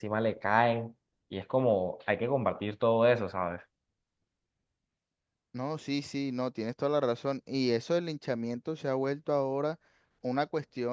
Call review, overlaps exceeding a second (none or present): none